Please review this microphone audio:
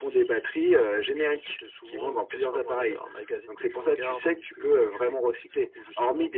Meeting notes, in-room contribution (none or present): none